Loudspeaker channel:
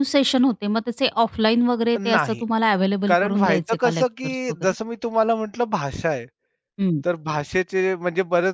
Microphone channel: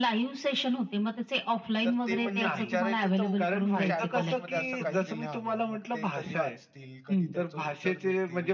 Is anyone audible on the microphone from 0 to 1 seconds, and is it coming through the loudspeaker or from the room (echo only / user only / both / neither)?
echo only